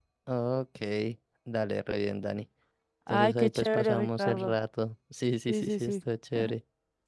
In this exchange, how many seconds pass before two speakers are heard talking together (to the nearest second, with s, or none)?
3 s